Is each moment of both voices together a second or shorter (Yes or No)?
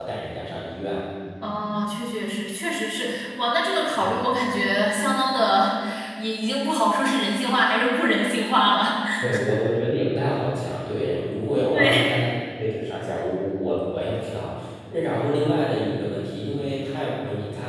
Yes